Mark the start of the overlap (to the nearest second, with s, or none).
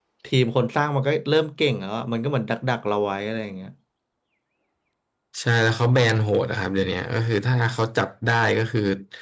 none